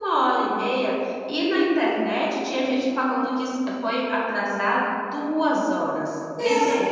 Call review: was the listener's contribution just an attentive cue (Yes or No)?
No